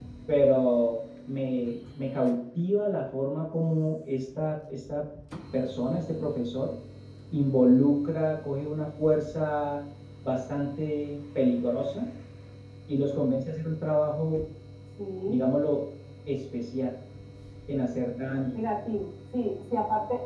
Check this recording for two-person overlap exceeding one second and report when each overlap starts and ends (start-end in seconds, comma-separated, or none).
none